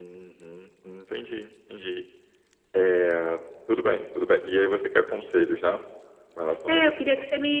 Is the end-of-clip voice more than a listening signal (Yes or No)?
Yes